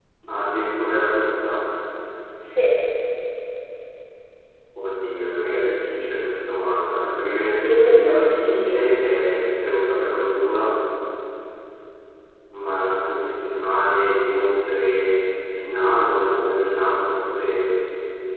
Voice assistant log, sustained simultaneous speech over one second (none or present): present